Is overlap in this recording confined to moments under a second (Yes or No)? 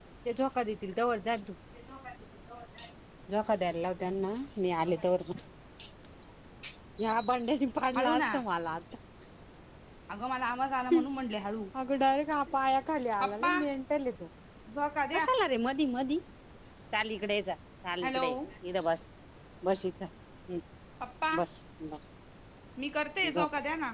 Yes